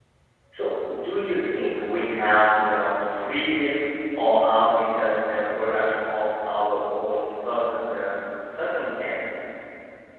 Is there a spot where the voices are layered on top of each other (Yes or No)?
No